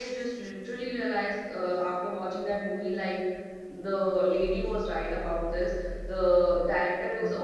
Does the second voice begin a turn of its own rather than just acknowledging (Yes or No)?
No